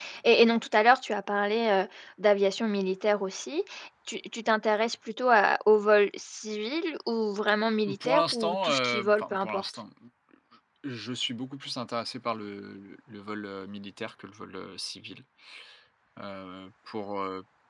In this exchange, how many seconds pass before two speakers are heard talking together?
7.9 s

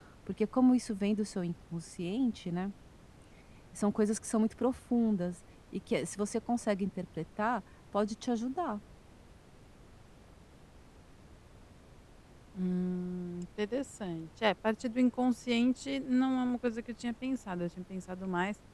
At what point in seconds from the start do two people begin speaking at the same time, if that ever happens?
none

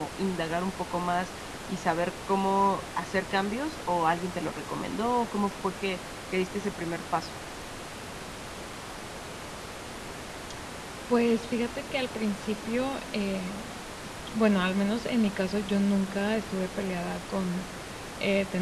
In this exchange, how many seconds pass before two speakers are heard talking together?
none

